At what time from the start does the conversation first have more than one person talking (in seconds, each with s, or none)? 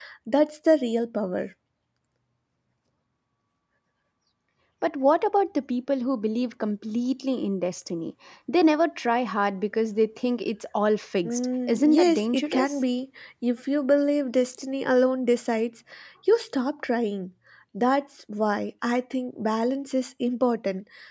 11.2 s